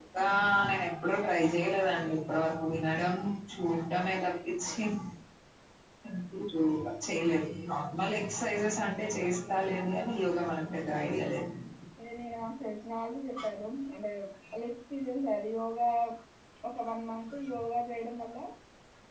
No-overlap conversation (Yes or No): Yes